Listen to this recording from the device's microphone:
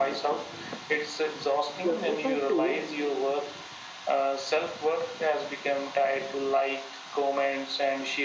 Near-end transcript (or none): g- if i post